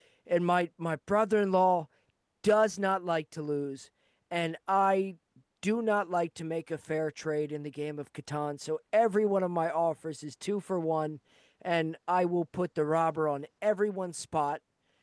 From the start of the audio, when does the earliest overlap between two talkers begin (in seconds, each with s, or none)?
none